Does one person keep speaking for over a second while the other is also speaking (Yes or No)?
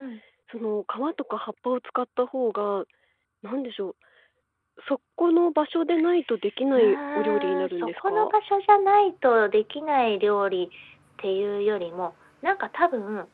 Yes